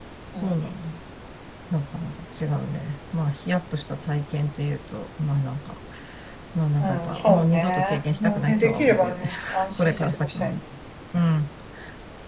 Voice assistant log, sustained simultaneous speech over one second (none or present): present